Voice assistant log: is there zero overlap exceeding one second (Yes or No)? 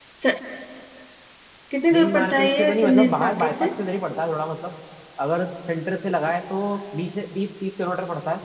No